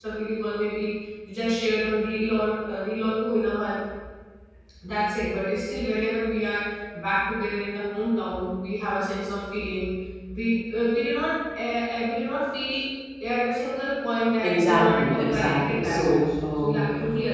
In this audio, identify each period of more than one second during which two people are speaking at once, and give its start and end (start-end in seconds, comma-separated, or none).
14.4-16.8